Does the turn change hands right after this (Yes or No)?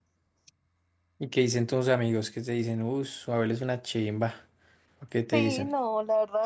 Yes